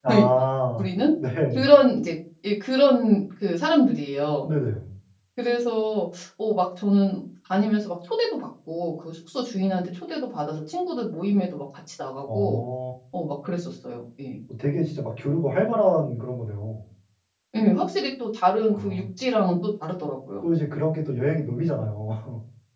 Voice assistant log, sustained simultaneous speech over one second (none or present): none